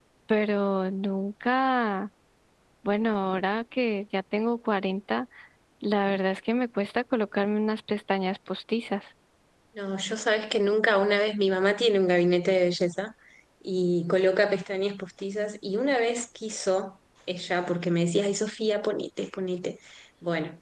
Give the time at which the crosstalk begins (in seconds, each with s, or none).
none